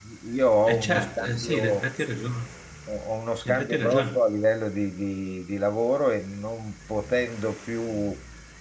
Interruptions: present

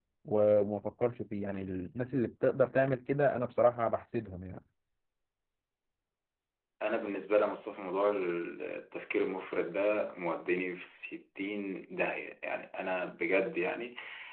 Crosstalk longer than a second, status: none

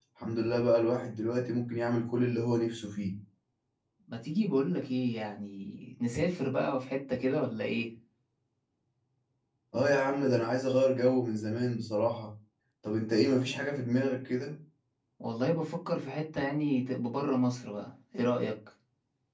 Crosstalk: none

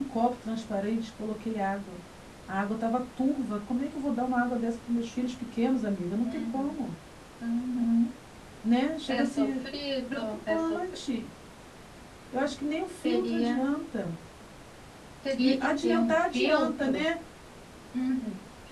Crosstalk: present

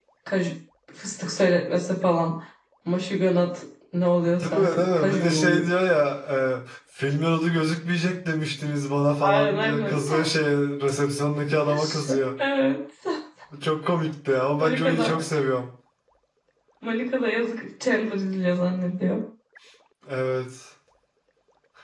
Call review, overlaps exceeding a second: present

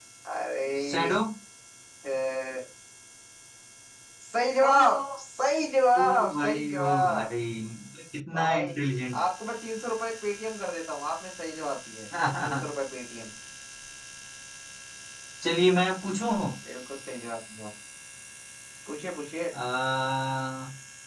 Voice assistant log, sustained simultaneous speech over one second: present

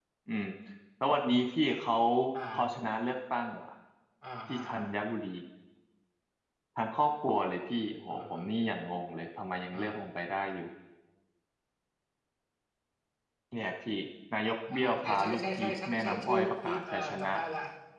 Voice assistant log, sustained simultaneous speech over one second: present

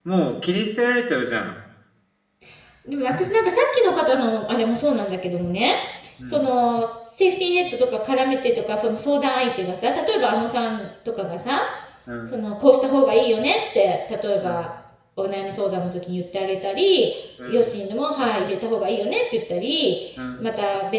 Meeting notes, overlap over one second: none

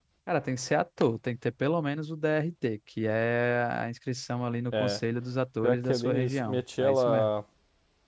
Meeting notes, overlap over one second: present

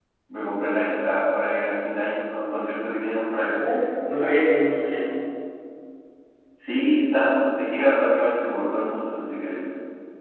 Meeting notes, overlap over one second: none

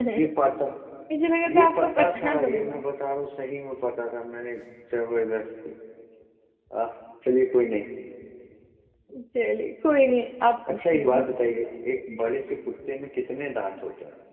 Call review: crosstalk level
present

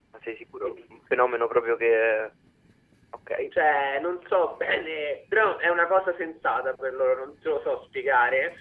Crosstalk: none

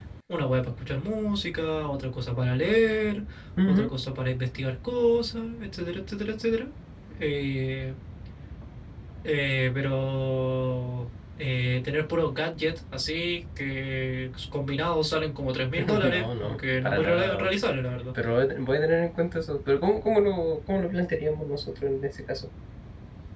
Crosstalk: present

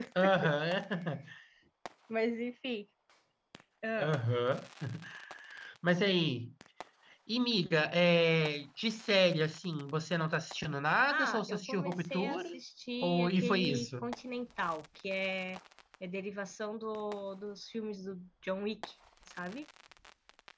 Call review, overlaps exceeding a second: present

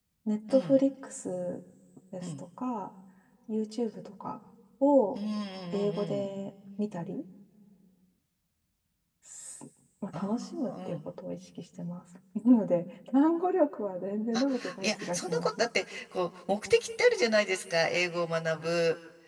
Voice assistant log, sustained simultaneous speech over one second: present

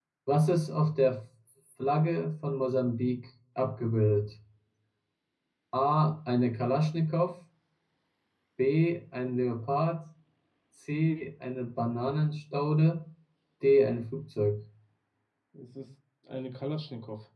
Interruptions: none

